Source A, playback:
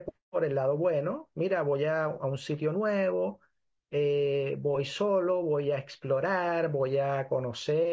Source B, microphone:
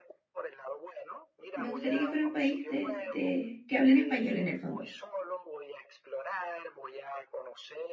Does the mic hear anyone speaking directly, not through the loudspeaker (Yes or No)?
Yes